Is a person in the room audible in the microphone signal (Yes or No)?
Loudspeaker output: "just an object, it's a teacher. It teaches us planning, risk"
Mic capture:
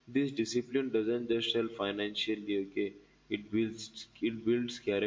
Yes